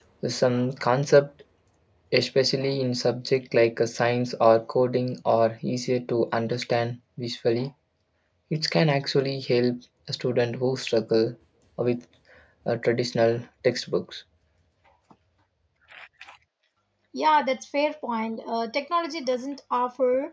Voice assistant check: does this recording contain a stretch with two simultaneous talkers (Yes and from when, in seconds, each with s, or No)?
No